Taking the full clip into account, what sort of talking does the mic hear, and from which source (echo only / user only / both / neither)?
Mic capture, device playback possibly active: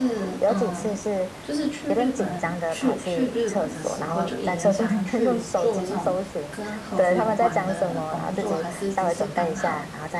both